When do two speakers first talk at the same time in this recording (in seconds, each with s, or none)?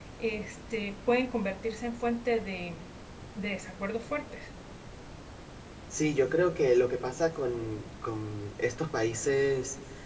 none